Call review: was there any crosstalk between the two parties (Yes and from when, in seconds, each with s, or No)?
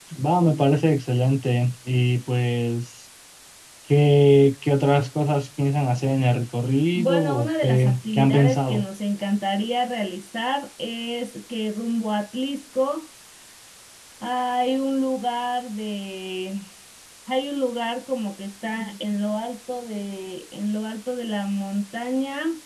Yes, from 6.9 s